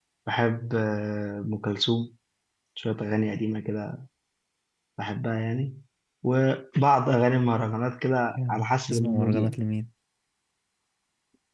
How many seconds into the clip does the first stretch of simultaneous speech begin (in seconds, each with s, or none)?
8.4 s